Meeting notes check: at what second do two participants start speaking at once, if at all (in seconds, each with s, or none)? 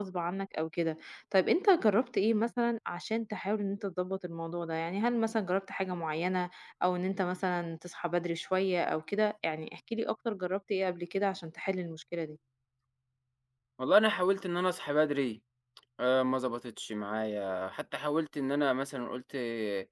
none